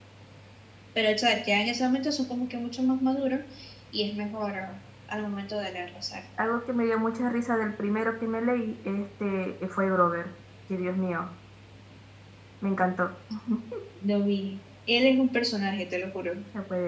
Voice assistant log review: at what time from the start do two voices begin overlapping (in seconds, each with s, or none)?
none